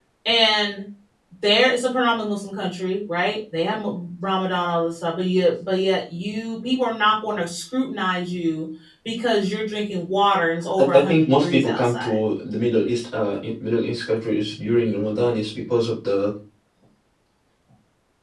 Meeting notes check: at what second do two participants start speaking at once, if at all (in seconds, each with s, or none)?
10.8 s